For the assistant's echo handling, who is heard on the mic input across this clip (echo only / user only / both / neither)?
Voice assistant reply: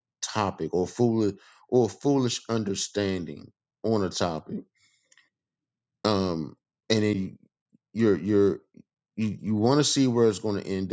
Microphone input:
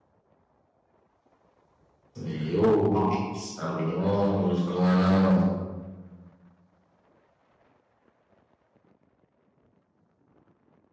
user only